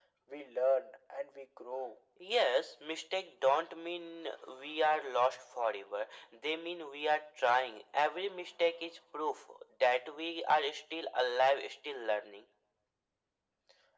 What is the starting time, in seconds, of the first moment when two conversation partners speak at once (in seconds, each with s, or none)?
none